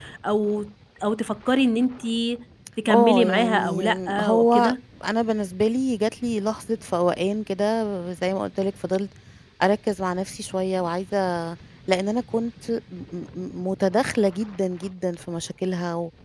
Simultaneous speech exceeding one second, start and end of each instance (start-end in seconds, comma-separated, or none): 2.9-4.7